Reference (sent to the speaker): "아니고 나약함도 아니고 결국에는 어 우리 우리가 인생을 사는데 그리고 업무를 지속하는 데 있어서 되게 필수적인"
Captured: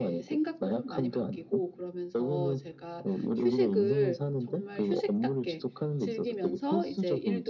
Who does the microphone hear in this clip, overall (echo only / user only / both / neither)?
both